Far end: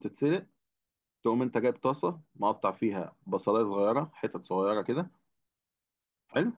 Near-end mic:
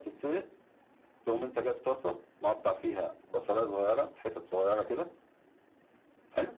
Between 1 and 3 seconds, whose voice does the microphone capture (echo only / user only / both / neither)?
echo only